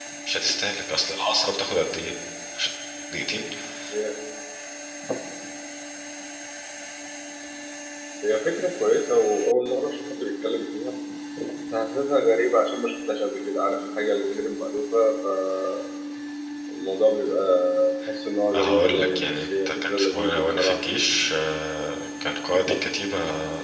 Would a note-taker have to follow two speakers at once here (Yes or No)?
Yes